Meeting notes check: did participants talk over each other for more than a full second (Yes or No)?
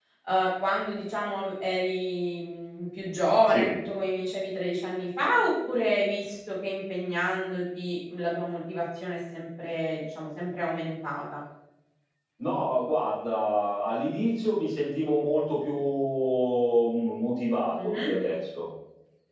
No